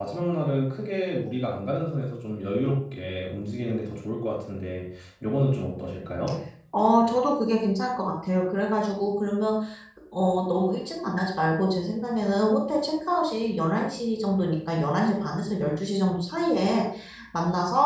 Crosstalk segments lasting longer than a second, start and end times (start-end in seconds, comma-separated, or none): none